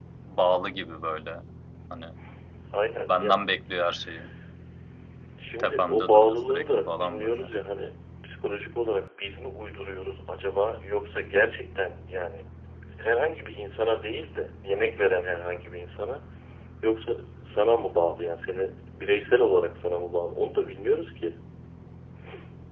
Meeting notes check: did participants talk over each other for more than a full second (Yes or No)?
Yes